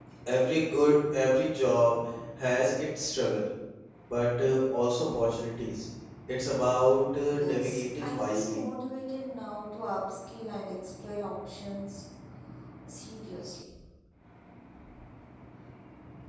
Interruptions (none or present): present